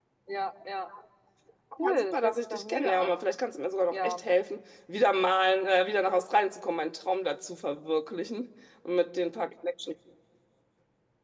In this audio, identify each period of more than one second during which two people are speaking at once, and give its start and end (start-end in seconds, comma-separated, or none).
1.8-3.1